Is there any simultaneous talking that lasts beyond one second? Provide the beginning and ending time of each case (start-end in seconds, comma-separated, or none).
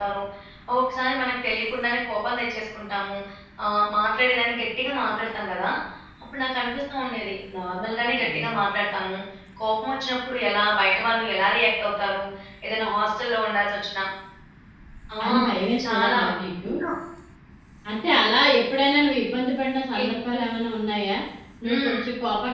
none